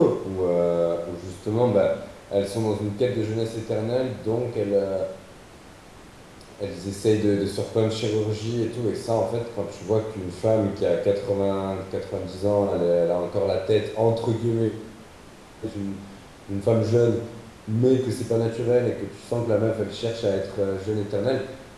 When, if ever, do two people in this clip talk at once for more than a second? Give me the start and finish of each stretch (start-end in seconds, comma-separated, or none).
none